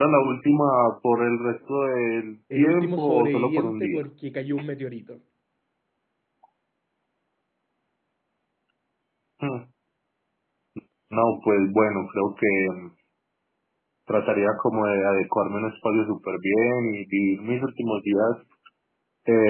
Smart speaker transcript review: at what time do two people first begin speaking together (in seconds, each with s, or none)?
2.5 s